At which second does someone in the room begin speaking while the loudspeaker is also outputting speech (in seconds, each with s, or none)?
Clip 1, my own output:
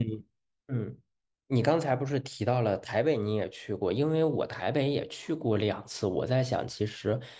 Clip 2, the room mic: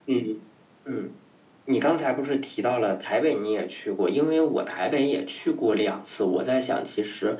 none